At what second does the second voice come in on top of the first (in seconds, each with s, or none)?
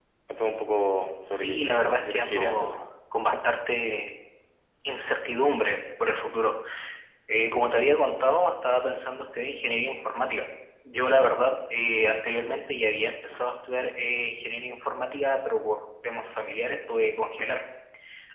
1.3 s